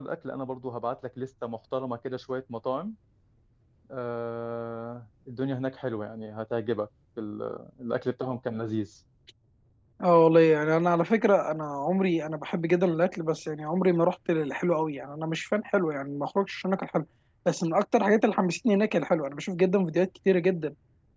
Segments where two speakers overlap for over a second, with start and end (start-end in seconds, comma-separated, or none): none